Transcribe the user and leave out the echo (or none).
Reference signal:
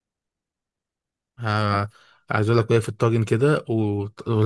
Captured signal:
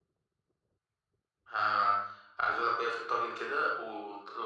none